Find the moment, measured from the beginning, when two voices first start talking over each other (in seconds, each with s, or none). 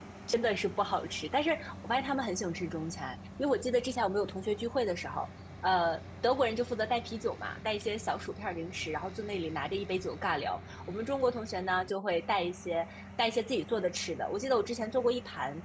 none